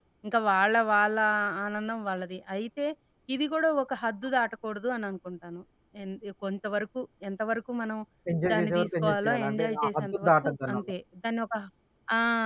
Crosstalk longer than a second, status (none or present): present